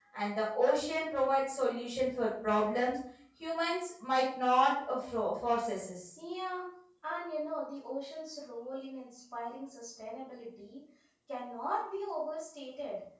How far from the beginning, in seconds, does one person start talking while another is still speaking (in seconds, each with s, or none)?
none